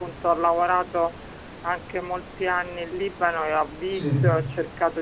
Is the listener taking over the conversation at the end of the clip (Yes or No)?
No